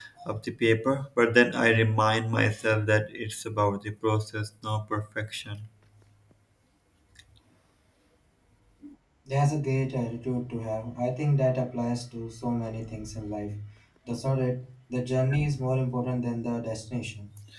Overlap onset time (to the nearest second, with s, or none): none